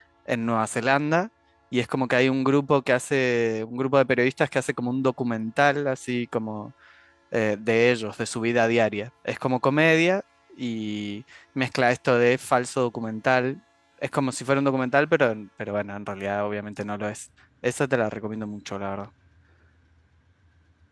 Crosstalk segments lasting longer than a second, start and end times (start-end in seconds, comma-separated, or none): none